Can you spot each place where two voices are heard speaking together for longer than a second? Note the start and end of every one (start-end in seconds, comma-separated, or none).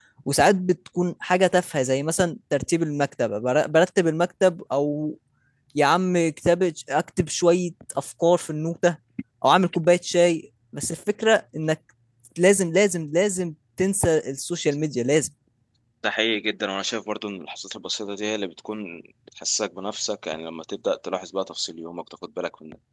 none